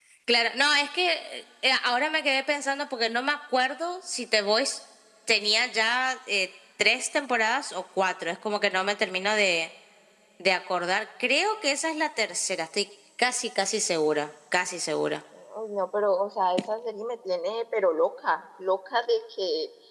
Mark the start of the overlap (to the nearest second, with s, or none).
none